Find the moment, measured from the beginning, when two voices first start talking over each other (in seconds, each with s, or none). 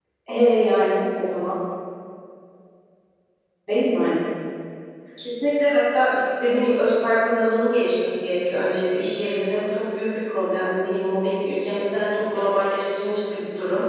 none